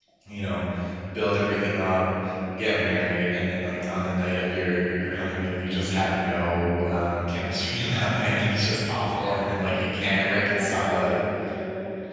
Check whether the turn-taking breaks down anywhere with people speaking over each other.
Yes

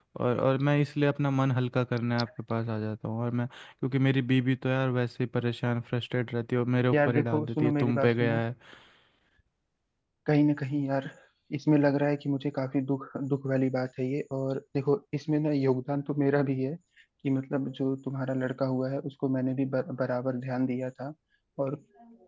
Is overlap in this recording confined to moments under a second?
No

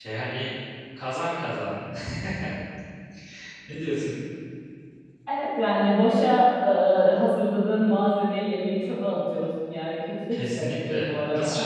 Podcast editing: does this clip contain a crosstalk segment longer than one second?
Yes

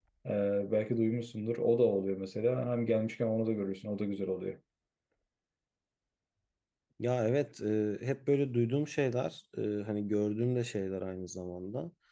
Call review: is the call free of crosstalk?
Yes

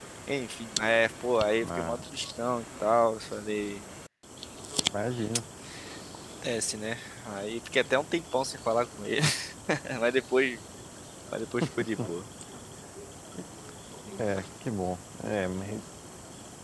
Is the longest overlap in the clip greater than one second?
No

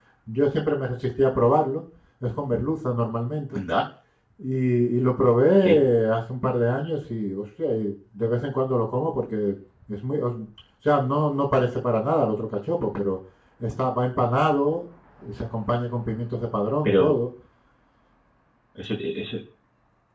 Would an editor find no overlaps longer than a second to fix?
Yes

